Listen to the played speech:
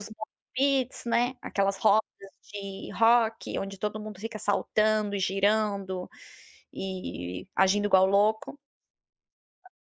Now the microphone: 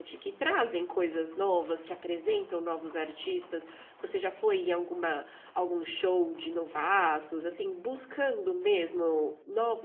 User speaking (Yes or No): Yes